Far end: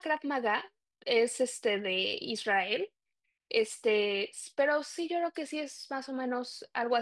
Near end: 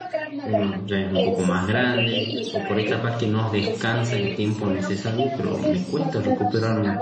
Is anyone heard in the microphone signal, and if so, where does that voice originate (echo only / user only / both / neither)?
both